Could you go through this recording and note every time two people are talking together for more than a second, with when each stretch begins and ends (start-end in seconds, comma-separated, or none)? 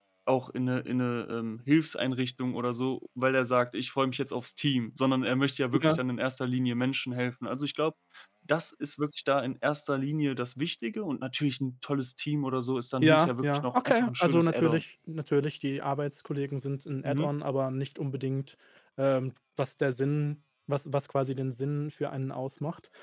13.0-14.8